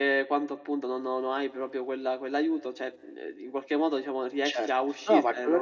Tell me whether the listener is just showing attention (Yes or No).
No